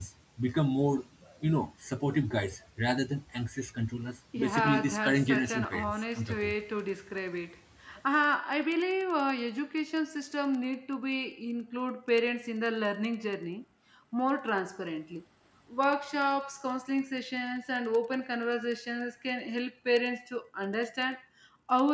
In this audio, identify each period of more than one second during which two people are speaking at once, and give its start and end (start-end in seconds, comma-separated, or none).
4.4-6.5